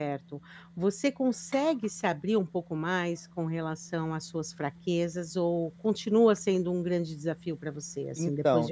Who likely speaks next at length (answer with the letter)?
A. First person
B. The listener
B